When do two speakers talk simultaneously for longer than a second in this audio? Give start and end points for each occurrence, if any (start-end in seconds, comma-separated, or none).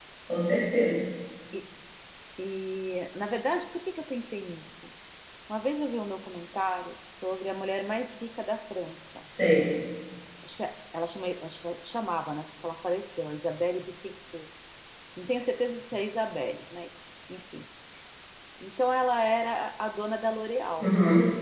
none